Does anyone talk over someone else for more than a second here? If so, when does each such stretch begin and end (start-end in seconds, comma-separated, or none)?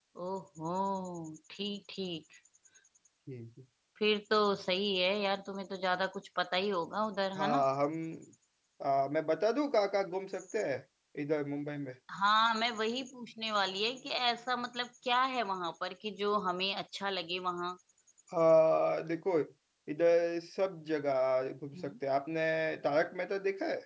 none